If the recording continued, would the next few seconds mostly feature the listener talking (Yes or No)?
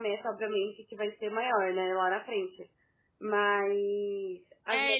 Yes